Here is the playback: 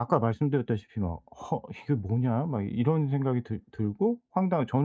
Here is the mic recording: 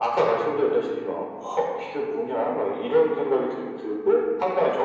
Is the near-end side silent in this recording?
Yes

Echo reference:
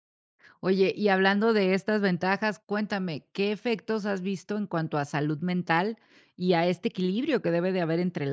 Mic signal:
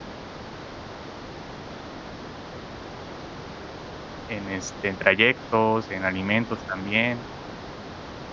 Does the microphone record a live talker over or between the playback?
Yes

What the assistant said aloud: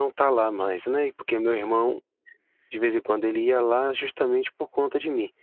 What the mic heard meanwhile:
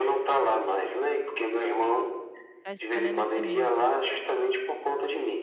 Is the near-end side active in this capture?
Yes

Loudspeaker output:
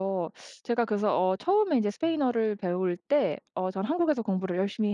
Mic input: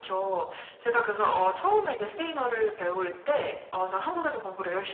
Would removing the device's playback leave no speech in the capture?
Yes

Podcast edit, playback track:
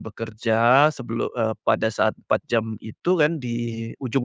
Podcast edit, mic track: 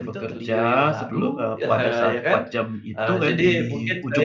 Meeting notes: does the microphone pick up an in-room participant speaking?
Yes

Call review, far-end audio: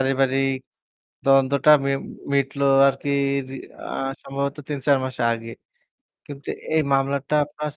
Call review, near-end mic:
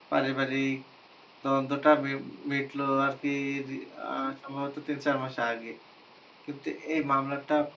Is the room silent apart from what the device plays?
Yes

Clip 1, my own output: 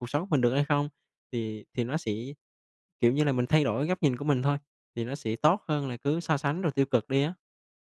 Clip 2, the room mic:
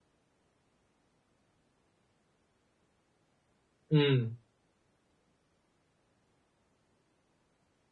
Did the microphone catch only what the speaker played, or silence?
No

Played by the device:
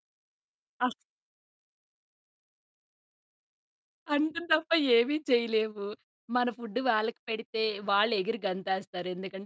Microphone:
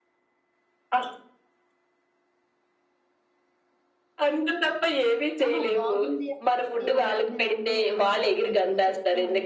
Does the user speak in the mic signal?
Yes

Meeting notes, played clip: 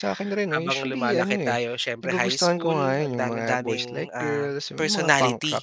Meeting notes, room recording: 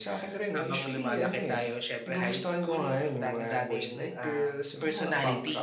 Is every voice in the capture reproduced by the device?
Yes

